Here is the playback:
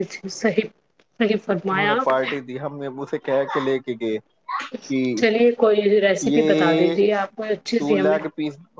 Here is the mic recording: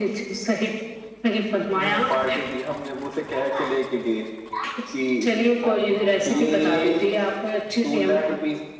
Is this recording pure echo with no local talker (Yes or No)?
No